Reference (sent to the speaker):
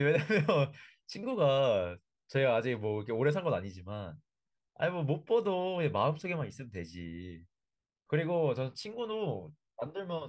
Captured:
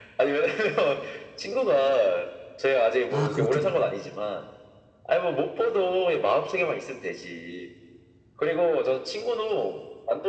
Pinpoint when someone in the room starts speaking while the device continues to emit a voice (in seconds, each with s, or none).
3.1 s